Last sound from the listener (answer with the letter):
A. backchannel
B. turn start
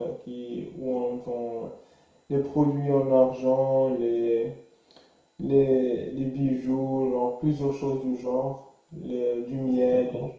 B